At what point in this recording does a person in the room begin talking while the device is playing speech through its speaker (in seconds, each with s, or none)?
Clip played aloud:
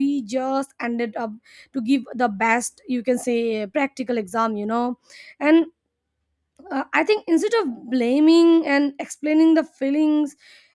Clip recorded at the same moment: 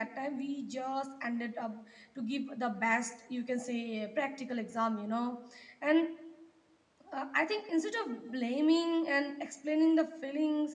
none